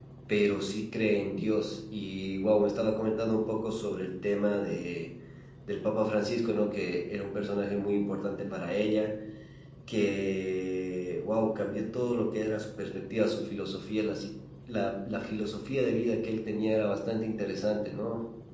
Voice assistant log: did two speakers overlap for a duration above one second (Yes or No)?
No